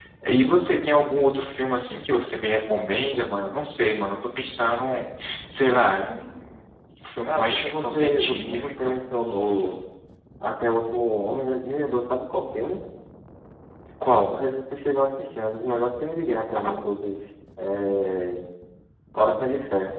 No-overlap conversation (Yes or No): No